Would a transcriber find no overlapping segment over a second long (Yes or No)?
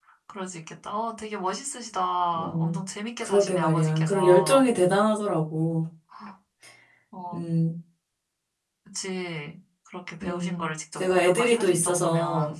No